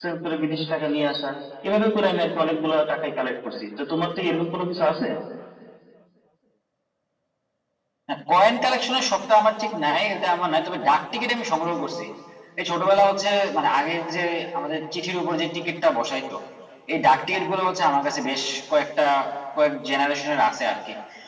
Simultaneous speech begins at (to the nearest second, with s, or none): none